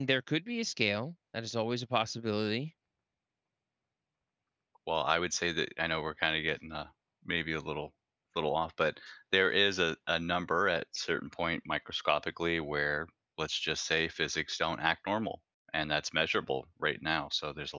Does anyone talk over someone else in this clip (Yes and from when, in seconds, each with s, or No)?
No